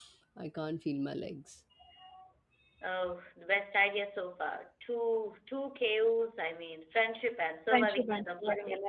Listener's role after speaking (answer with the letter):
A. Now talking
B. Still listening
A